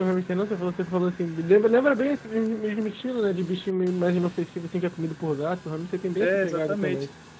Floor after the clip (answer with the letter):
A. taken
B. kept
A